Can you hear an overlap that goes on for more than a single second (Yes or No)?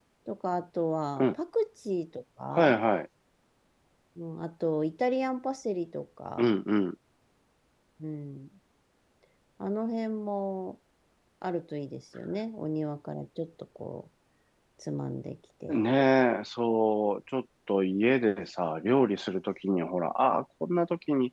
No